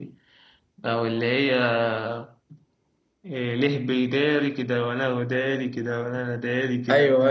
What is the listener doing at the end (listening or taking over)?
taking over